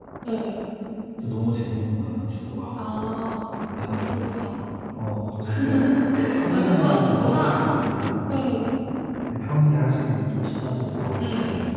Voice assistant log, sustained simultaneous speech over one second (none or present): present